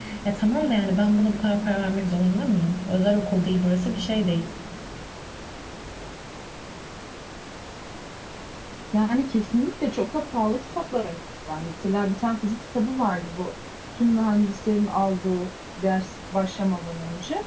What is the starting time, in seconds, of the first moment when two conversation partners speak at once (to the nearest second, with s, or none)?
none